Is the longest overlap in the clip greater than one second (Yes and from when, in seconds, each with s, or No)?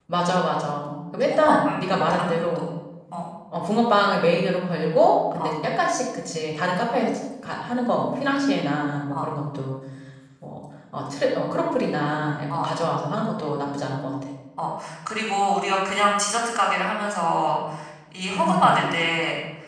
Yes, from 1.2 s